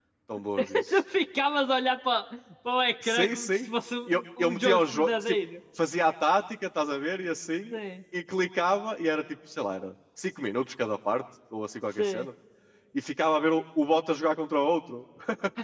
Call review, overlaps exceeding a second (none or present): present